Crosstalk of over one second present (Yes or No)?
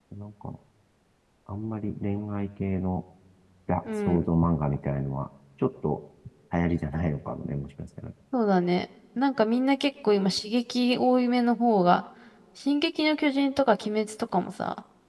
No